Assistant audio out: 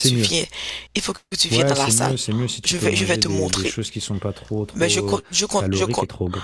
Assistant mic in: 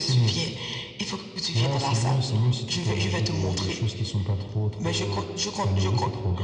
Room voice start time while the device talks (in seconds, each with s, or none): none